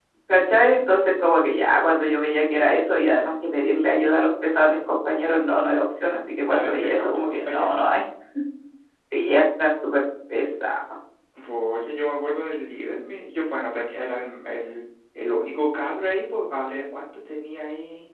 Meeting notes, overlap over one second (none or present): present